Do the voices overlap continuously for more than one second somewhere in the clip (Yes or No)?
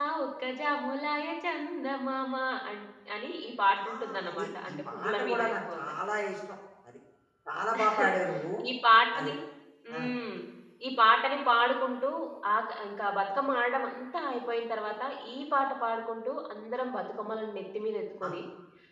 Yes